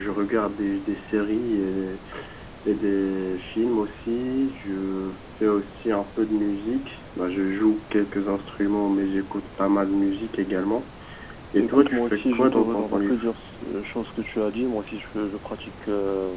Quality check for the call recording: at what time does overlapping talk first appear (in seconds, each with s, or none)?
11.6 s